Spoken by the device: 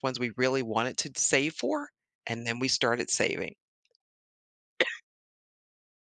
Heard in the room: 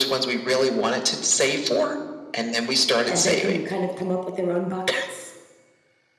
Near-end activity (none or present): present